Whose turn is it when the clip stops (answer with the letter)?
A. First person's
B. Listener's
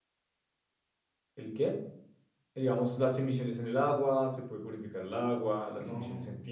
A